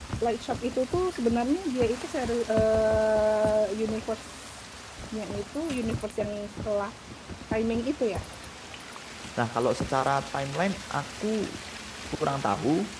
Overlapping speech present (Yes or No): No